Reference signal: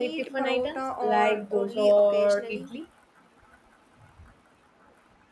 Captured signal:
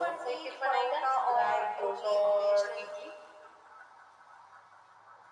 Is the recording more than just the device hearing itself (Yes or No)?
No